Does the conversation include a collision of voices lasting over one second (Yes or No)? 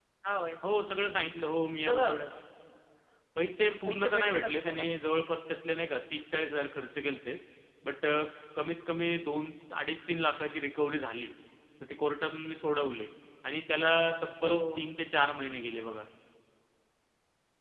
Yes